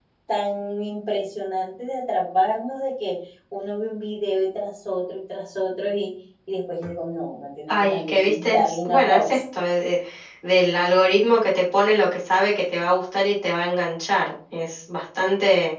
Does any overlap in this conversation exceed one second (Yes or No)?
Yes